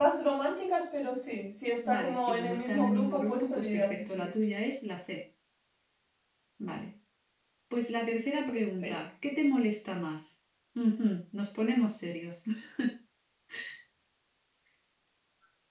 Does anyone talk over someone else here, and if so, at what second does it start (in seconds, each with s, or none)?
1.9 s